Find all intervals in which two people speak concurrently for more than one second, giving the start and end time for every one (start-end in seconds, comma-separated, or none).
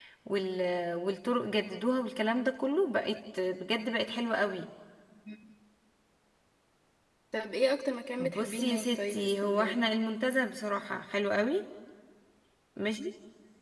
8.2-9.8